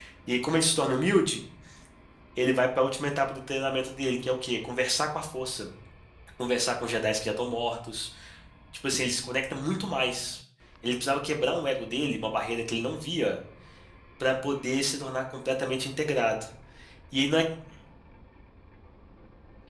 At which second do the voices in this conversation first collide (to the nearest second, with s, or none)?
none